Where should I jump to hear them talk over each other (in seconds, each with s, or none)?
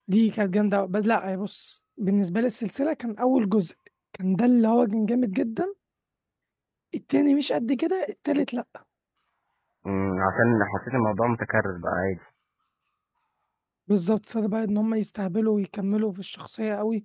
none